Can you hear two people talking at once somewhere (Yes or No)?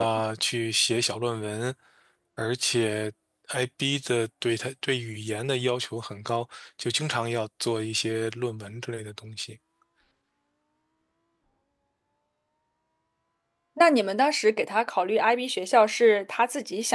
No